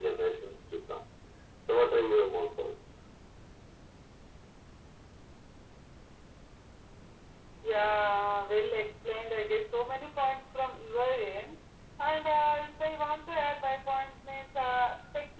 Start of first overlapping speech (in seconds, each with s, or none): none